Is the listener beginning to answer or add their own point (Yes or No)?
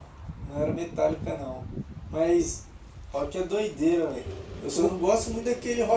No